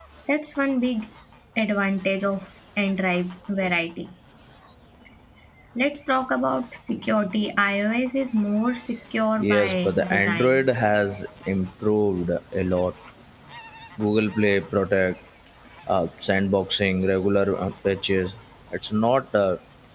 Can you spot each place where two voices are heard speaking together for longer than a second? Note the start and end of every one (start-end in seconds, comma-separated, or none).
9.4-10.7